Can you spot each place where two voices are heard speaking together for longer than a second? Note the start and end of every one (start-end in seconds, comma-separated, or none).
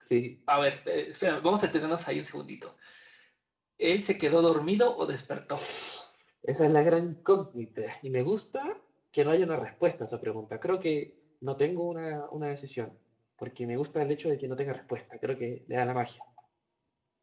none